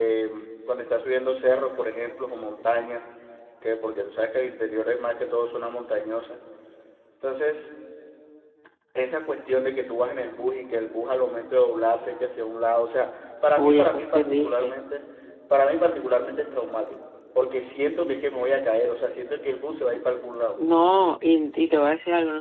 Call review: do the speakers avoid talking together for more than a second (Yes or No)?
No